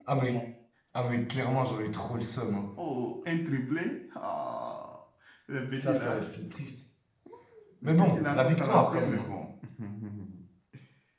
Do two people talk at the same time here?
Yes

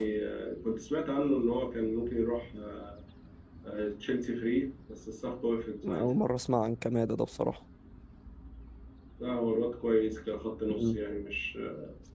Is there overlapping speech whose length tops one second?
No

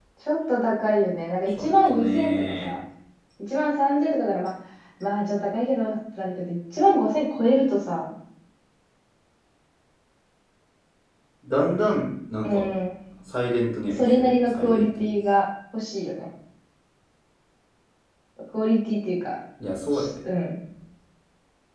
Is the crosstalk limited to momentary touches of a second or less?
No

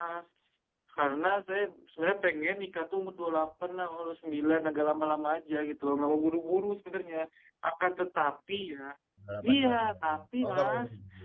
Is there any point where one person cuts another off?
Yes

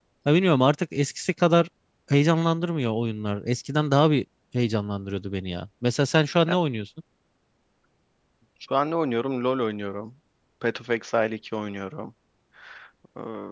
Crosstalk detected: No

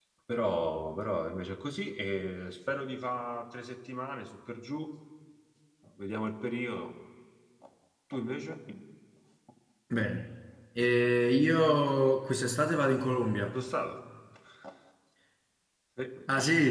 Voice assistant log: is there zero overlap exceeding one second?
Yes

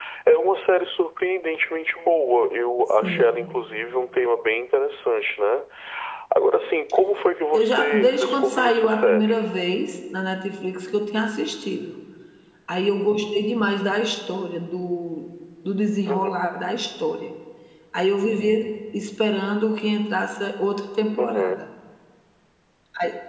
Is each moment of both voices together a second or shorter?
No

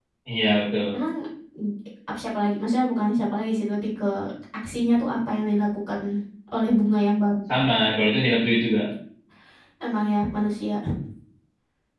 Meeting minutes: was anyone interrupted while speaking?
No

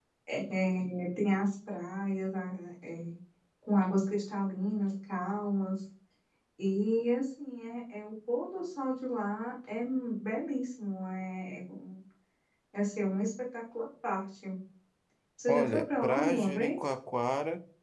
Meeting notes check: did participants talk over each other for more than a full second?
Yes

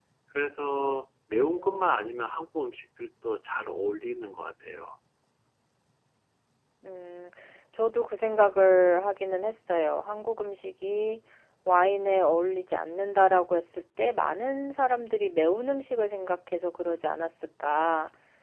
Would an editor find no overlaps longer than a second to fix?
Yes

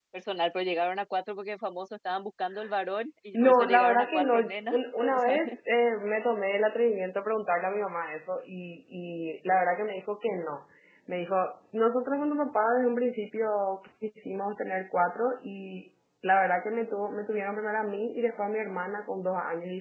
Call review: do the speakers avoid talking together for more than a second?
No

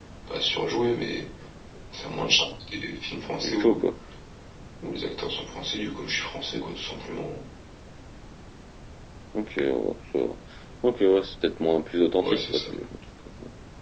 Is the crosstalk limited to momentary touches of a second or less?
Yes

